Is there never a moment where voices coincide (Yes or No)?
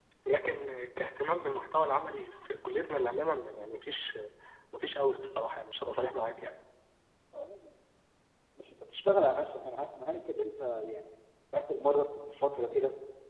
Yes